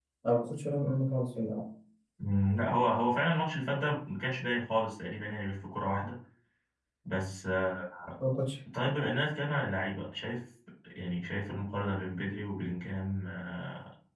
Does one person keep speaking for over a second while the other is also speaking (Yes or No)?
No